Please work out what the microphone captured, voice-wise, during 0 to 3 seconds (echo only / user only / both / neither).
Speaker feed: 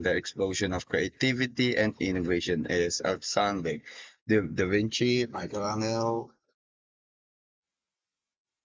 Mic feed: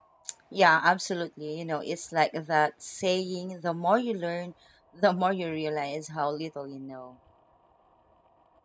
user only